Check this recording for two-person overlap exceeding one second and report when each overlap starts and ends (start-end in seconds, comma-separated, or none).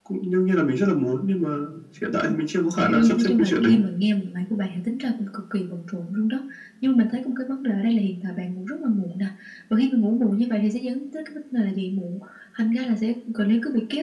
2.5-3.8